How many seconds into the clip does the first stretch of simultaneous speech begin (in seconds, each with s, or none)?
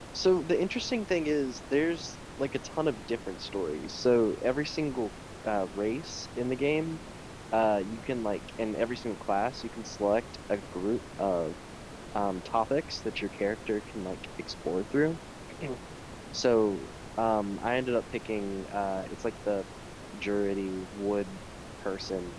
none